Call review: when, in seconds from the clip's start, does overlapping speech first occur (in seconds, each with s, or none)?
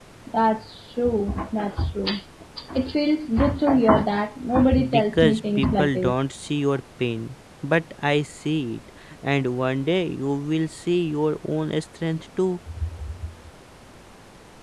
4.7 s